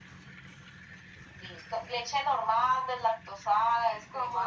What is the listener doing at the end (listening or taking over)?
taking over